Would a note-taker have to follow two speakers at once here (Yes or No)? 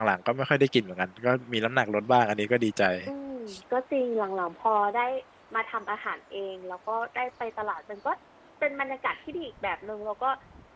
No